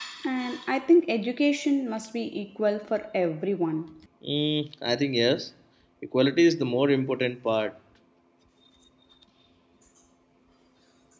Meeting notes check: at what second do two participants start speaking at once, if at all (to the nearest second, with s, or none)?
none